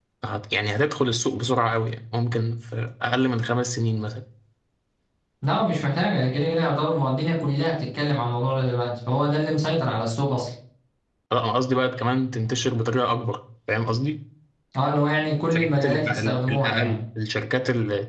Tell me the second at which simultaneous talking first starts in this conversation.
16 s

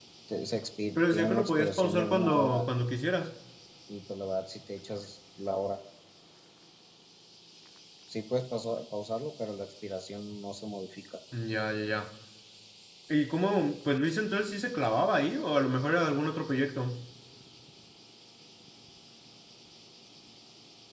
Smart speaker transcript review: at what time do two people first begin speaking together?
1 s

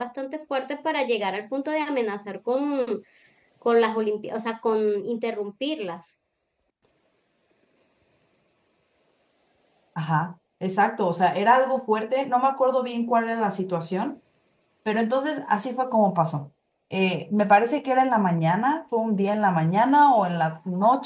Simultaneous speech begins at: none

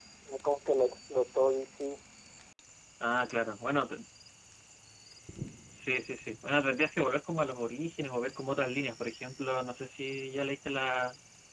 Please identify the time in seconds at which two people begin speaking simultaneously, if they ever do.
none

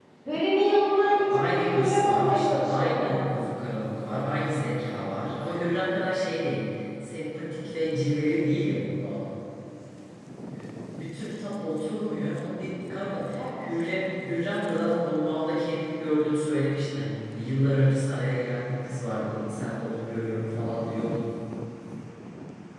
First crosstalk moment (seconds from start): 1 s

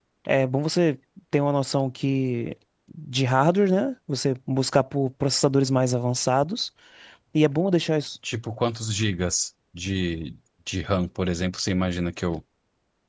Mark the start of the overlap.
none

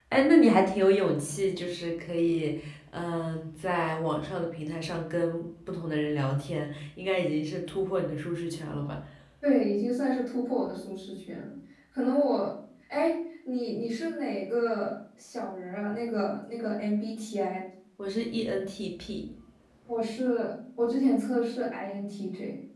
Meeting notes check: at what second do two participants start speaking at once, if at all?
none

